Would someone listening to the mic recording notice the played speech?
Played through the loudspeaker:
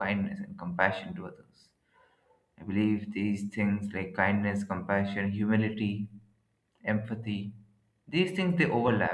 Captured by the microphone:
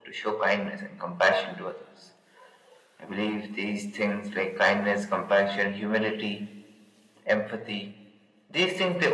Yes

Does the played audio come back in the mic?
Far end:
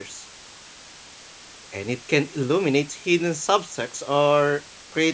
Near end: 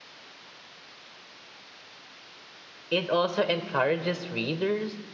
No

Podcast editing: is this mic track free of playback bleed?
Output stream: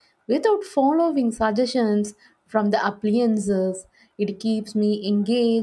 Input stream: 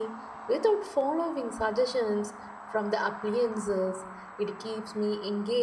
No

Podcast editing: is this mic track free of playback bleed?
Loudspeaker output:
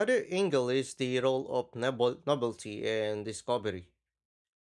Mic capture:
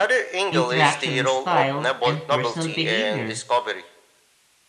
No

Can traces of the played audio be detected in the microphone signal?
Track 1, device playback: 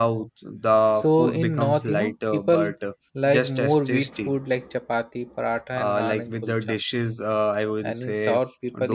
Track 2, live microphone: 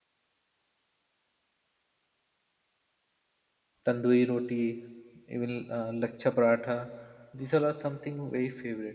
No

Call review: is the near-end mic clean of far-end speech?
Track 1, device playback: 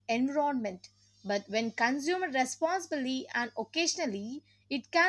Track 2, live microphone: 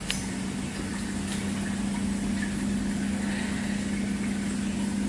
Yes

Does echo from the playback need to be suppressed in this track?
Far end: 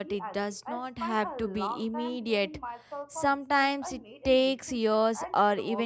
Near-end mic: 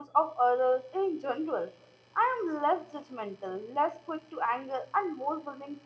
No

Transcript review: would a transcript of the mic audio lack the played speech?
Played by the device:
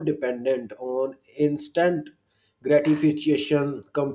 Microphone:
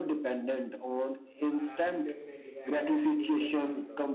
No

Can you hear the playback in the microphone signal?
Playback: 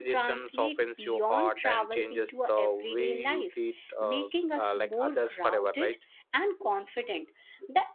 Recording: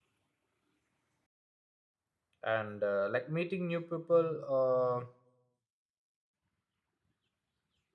No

